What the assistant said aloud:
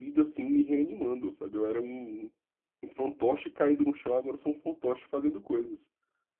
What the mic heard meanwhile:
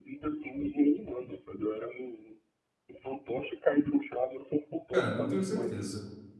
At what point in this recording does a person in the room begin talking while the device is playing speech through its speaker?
4.9 s

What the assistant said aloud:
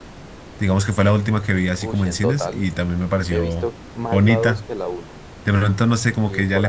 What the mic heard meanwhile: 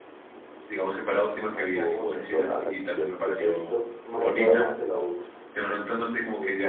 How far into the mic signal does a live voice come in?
1.4 s

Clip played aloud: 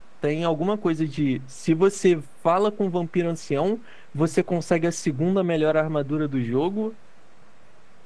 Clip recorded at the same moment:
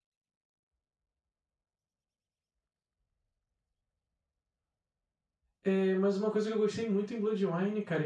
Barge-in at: 5.6 s

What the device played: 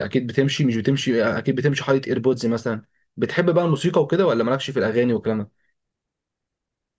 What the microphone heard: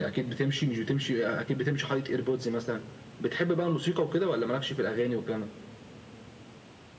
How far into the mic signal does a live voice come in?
none

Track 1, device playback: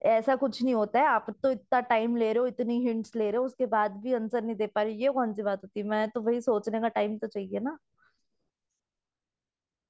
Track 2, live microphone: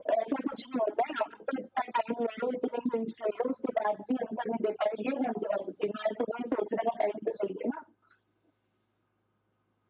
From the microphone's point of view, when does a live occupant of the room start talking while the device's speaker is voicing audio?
none

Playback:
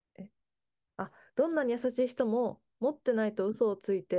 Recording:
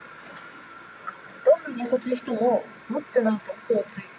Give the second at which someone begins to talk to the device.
none

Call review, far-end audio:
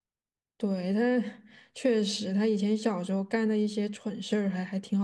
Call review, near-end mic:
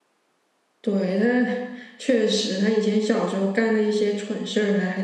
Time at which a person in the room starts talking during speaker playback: none

